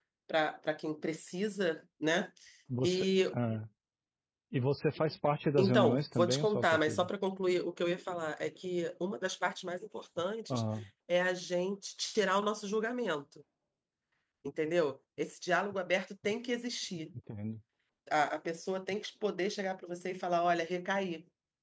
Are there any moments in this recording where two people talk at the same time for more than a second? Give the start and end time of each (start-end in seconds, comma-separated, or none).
5.6-7.1